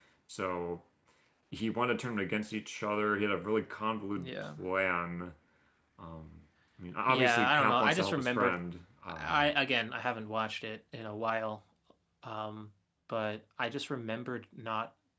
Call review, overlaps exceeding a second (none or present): present